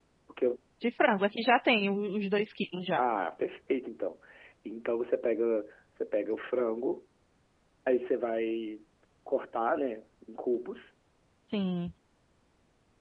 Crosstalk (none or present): none